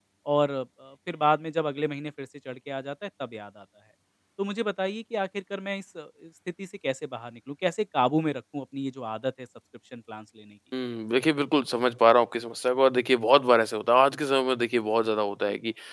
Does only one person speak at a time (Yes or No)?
Yes